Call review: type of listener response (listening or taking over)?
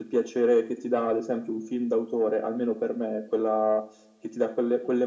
listening